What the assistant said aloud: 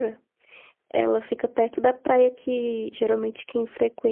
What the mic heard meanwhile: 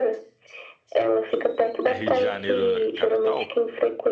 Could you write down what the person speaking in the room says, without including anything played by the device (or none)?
é Rio de Janeiro capital?